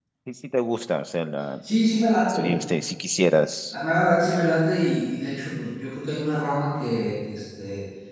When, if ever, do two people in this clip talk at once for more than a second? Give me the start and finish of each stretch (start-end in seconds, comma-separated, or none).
none